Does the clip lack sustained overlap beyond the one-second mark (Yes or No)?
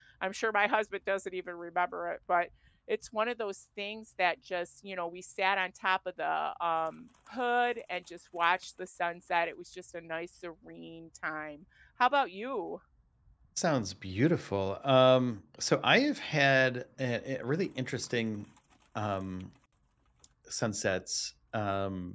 Yes